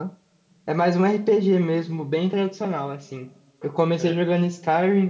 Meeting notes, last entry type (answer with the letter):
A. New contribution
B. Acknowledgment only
B